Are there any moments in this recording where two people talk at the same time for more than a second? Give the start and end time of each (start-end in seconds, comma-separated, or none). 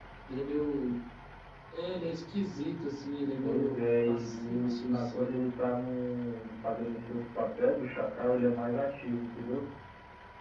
3.4-5.3